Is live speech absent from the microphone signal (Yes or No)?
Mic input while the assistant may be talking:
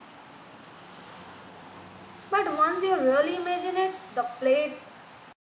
No